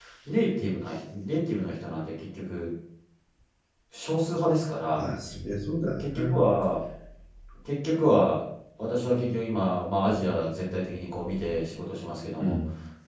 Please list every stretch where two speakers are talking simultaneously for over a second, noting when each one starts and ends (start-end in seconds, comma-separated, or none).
none